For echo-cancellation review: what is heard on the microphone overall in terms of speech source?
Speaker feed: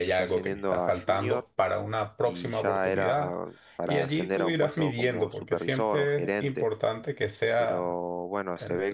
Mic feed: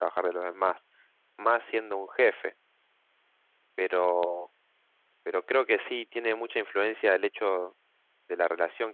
user only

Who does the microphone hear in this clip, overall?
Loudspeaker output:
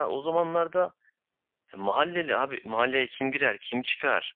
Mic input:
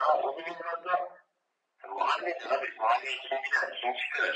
echo only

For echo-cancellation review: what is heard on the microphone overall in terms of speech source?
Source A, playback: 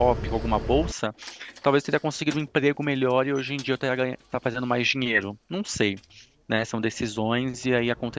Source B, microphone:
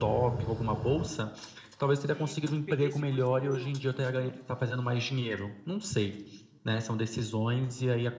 both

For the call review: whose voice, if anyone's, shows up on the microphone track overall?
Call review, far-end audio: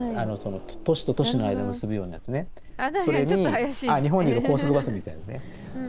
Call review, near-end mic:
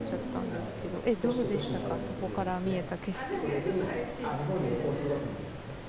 both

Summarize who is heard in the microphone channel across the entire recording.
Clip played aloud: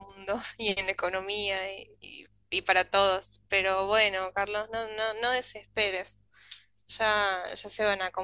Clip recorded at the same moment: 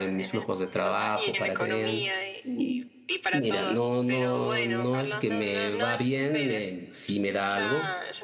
both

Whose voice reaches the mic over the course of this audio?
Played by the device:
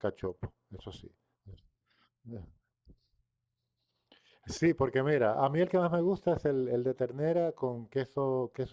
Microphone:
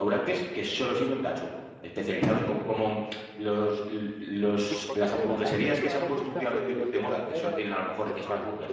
both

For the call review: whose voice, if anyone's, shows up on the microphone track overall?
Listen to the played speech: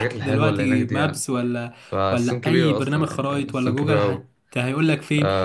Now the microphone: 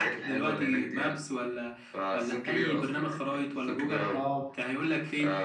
both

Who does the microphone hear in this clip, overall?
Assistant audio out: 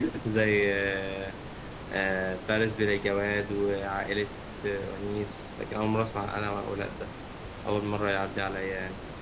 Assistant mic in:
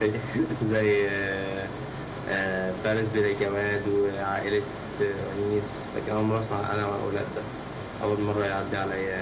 echo only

